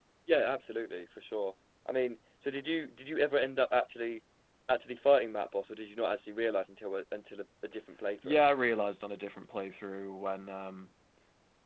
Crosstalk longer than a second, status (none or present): none